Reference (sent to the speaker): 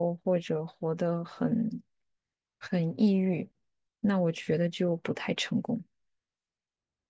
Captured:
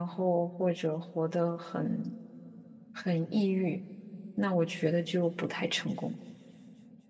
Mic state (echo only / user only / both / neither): echo only